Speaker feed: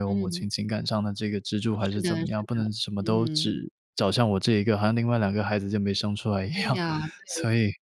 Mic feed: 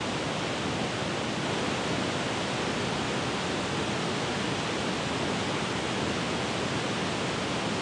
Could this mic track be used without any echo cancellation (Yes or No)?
Yes